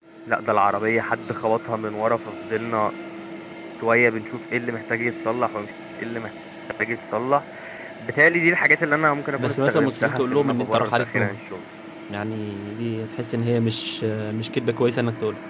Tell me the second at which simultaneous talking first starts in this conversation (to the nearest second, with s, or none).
9 s